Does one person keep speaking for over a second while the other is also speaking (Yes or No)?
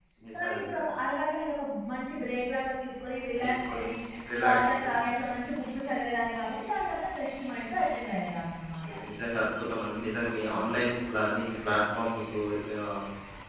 No